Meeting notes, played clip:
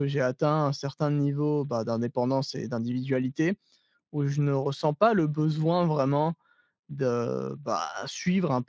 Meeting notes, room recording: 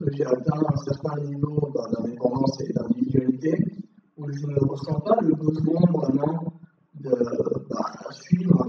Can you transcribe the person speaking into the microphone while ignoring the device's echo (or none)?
none